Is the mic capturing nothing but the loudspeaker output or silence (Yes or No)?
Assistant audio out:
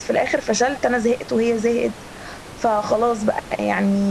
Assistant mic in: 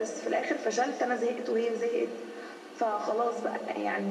Yes